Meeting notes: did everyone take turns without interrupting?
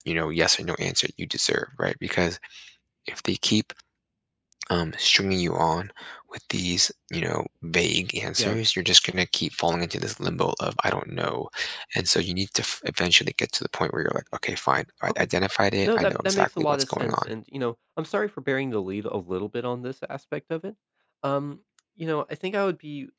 No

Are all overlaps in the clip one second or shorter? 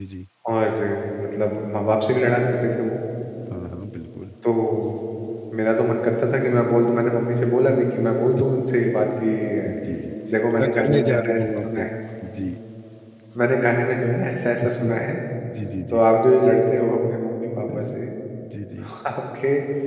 No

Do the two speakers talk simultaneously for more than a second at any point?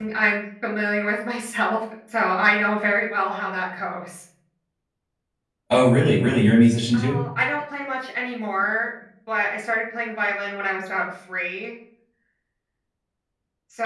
No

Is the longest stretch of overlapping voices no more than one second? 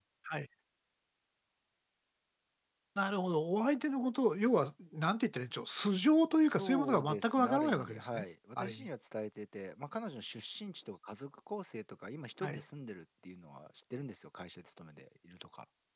No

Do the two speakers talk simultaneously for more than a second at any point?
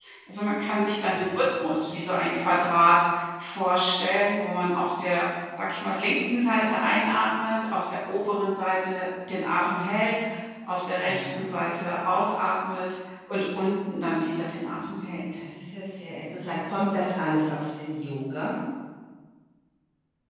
No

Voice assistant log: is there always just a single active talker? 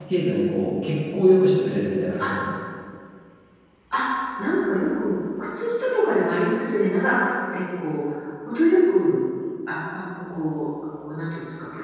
Yes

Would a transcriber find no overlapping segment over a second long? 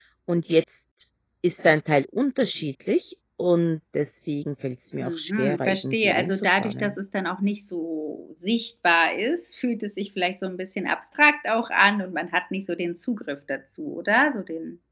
No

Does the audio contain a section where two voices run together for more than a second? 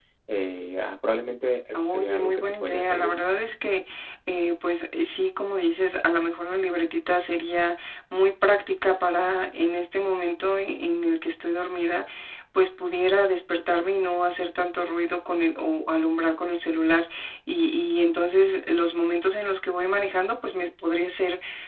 Yes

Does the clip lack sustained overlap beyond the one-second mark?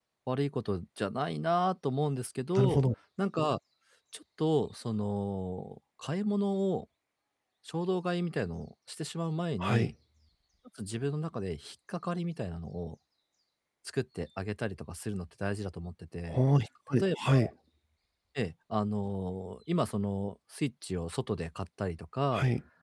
Yes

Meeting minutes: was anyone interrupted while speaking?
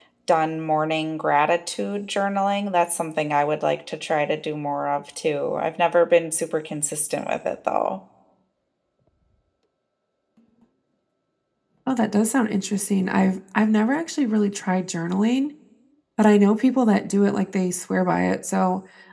No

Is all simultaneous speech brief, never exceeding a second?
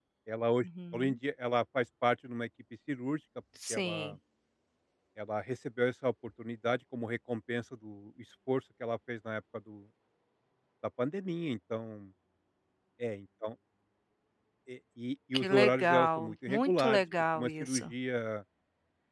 No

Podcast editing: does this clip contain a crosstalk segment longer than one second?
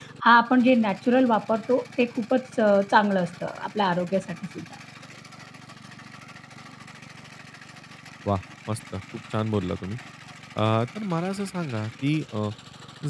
No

